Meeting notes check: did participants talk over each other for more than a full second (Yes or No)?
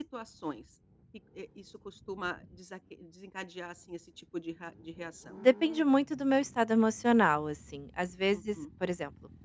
No